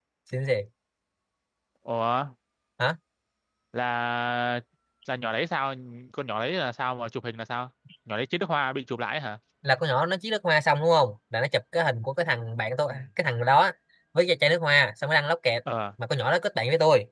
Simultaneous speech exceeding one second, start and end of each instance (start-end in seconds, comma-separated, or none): none